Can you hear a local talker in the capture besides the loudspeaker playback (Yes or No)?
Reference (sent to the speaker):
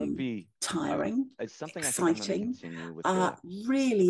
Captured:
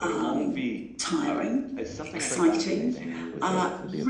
Yes